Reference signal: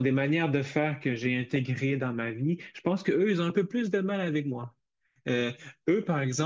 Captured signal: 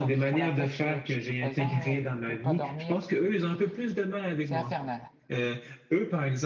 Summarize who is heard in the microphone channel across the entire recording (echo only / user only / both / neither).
both